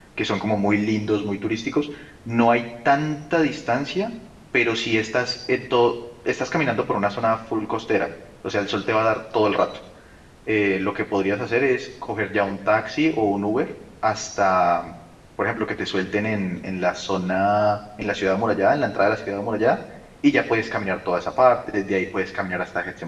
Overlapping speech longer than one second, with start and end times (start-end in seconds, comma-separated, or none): none